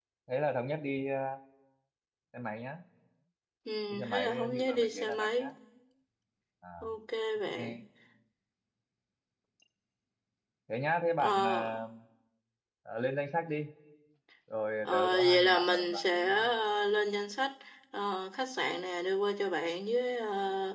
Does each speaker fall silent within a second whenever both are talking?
No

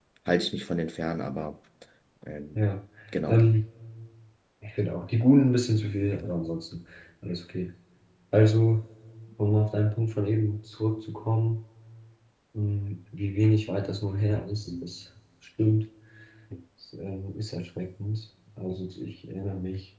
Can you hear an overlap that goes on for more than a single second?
No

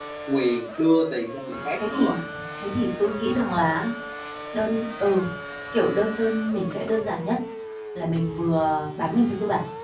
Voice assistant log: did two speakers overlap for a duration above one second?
No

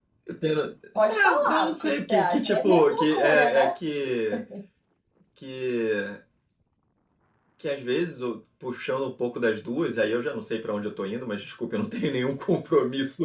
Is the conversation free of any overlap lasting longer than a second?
No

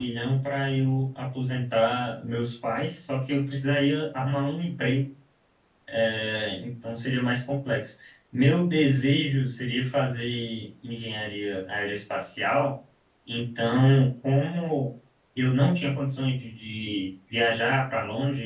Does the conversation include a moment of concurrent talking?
No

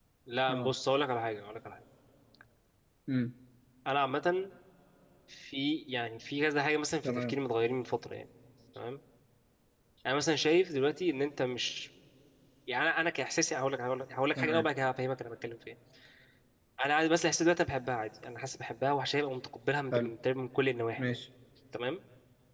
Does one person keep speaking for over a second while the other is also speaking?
No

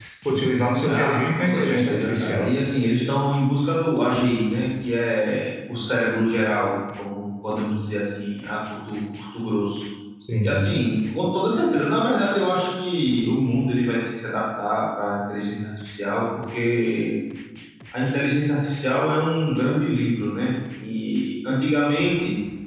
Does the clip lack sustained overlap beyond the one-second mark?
No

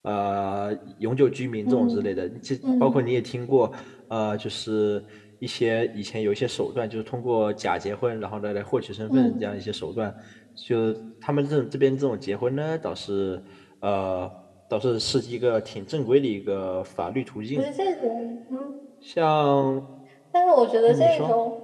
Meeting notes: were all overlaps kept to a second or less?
Yes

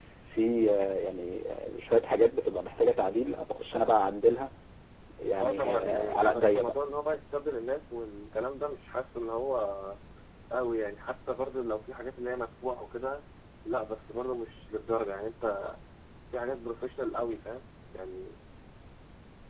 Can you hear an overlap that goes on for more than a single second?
Yes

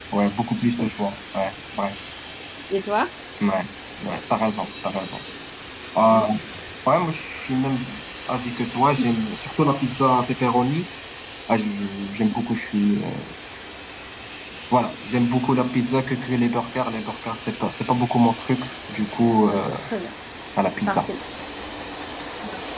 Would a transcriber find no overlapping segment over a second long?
Yes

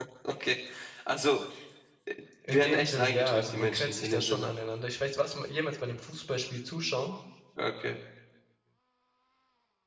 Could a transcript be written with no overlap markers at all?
No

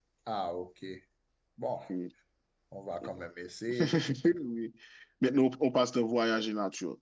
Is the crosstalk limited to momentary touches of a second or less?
Yes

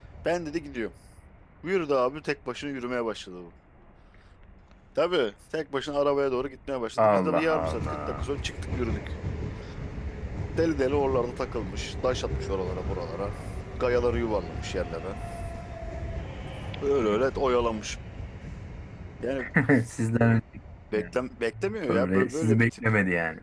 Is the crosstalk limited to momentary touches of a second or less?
No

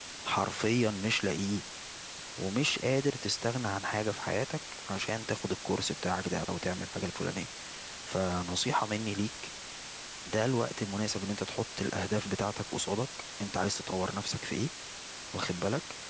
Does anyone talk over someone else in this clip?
No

